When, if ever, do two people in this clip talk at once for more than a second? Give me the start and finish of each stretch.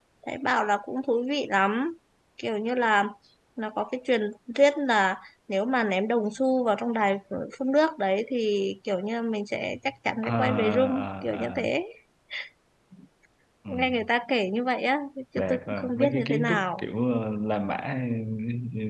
10.2-11.7, 15.4-16.8

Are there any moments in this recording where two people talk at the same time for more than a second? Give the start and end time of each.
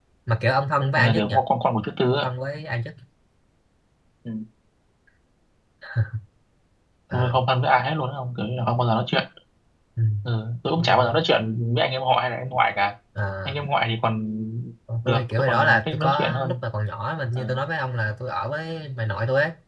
15.0-16.6

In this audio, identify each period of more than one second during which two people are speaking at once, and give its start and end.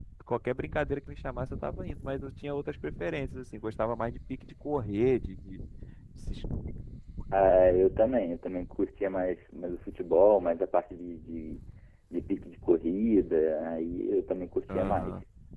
none

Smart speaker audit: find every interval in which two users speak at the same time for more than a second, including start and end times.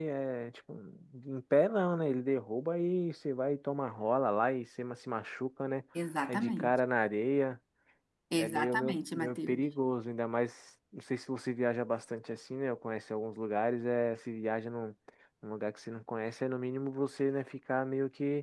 8.4-9.6

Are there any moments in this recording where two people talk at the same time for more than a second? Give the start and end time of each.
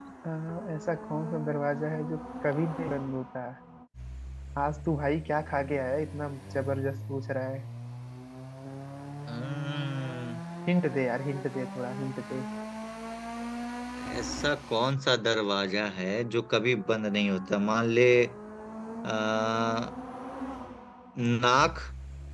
none

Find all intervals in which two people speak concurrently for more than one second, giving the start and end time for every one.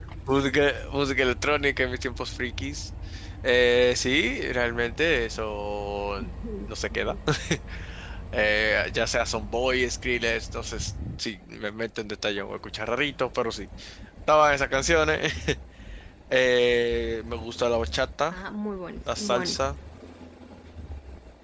none

